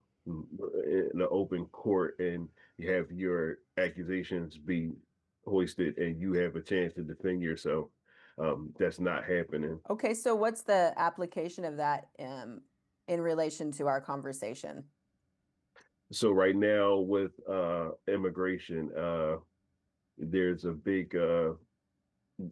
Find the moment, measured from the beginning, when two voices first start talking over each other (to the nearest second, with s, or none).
none